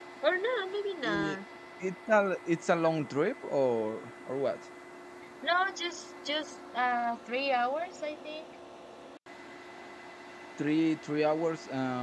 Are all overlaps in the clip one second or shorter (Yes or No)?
Yes